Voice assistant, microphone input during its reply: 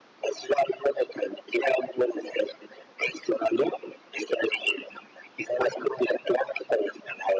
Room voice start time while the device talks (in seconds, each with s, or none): none